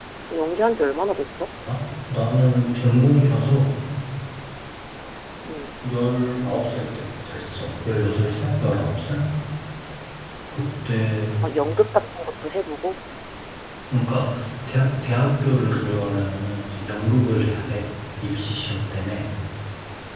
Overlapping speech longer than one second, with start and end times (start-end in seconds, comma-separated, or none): none